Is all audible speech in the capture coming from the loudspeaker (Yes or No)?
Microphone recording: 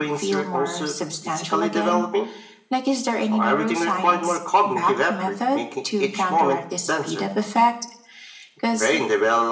Yes